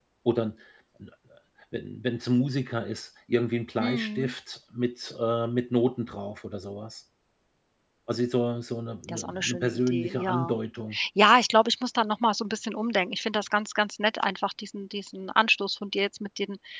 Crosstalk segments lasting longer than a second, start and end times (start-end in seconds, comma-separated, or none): 9.1-10.6